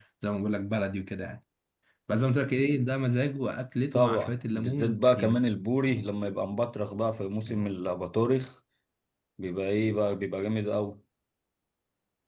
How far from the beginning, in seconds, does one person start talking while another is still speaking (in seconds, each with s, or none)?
3.9 s